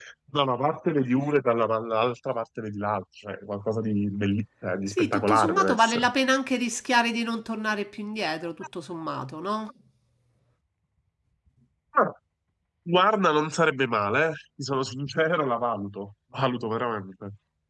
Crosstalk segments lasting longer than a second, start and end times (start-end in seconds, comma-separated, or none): 4.9-6.1